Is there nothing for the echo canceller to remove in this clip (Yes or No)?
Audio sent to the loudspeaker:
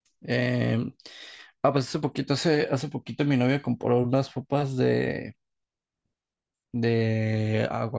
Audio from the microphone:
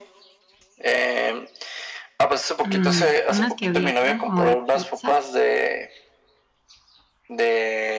No